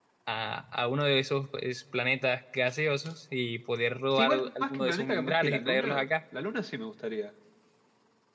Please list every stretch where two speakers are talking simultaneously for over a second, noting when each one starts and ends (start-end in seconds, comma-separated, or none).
4.1-6.1